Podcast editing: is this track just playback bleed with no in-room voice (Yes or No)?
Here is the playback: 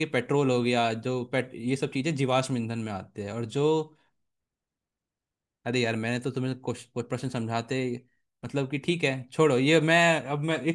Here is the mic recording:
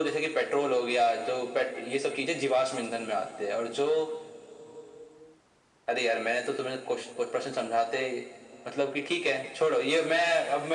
Yes